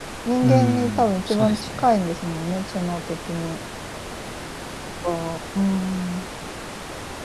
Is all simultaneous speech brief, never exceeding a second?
No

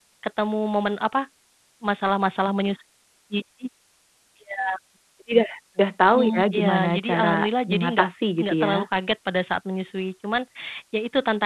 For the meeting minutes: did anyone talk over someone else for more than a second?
Yes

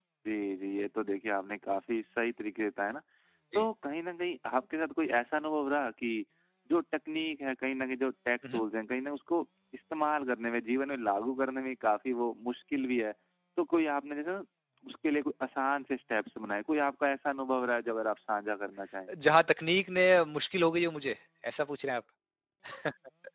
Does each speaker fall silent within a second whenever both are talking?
Yes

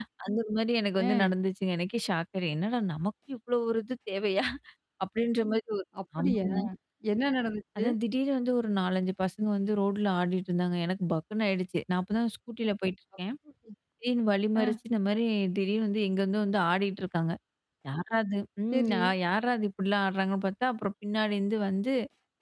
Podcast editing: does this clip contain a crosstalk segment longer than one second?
No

